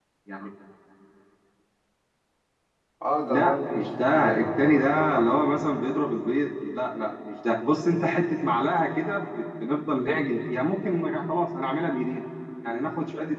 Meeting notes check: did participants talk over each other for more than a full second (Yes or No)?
Yes